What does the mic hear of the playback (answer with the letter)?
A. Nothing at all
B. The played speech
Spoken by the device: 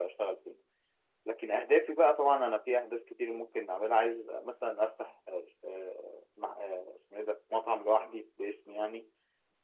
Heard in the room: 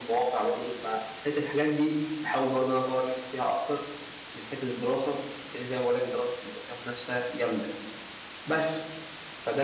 A